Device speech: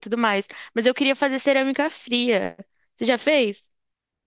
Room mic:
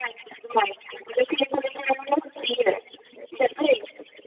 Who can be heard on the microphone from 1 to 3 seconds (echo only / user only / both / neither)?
echo only